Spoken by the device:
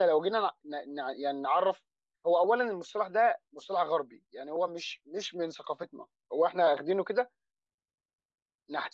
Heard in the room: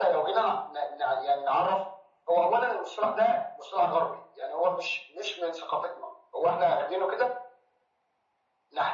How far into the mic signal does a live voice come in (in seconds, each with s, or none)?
none